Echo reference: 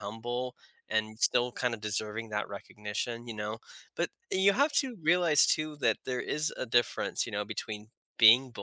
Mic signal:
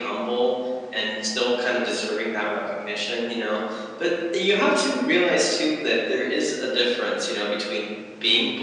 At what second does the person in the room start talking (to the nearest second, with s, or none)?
none